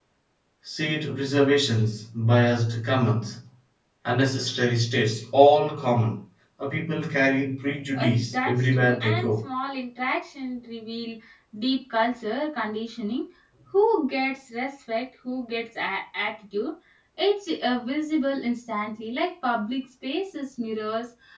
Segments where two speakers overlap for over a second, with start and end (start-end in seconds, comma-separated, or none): 7.9-9.4